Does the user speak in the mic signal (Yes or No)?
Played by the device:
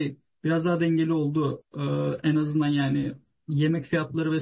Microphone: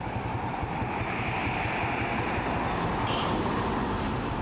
No